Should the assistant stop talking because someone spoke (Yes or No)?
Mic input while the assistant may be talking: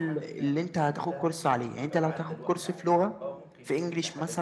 Yes